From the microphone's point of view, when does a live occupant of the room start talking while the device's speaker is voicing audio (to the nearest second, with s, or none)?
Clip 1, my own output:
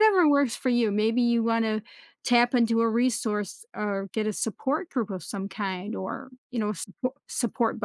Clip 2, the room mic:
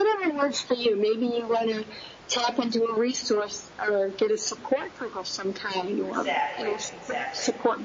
6 s